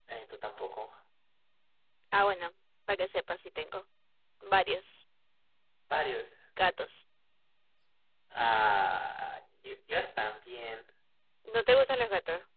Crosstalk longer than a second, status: none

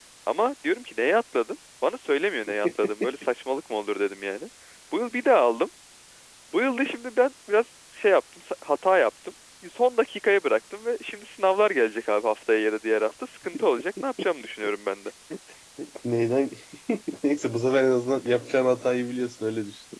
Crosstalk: none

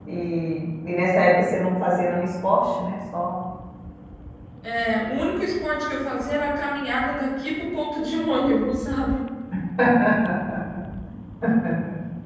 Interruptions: none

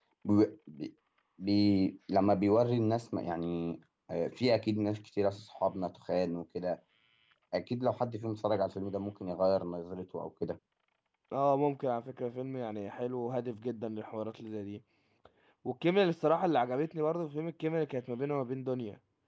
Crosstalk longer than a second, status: none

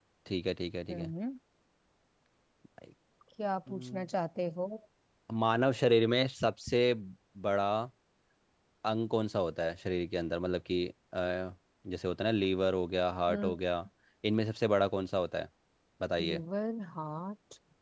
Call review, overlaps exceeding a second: none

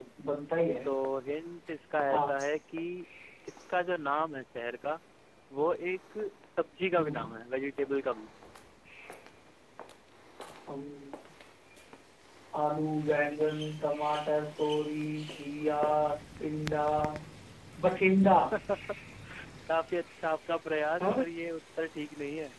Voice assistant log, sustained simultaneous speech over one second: none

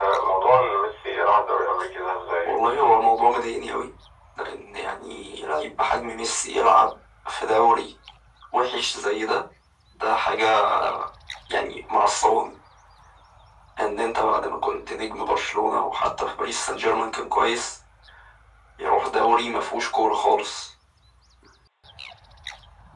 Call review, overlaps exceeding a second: none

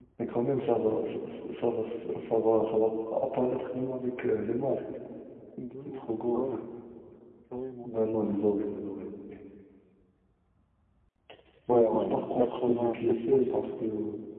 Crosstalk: present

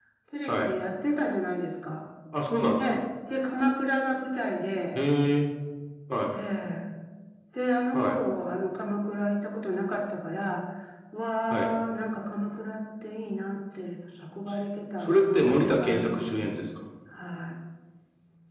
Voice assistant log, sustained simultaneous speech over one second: present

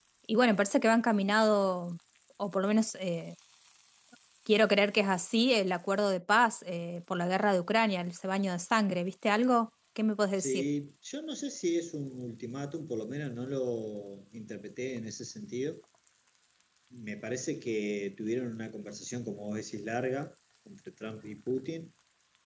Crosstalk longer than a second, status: none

